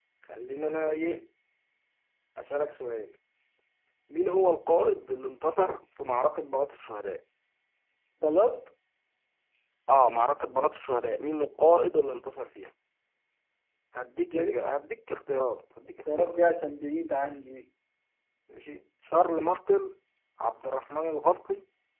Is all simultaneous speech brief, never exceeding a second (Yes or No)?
Yes